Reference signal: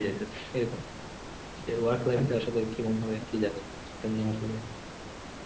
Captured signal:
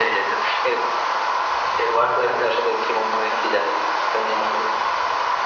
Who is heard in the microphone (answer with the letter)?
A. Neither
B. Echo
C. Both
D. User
B